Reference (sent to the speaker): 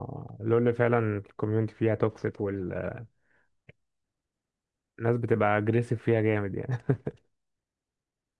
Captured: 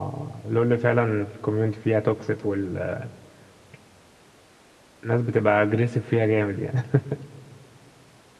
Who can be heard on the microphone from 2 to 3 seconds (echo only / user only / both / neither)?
echo only